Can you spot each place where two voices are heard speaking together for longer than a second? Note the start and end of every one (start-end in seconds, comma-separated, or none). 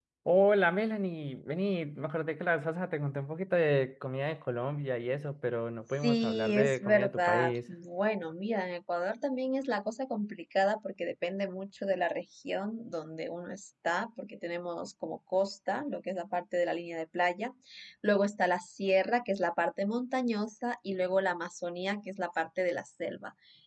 6.0-7.6